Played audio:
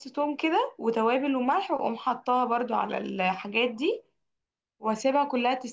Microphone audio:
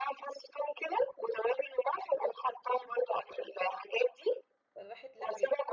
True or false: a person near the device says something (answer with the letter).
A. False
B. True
B